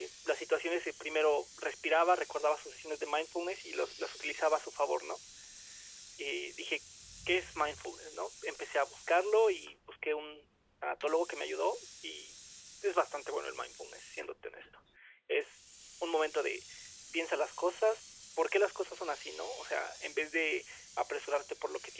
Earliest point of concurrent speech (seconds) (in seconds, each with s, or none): none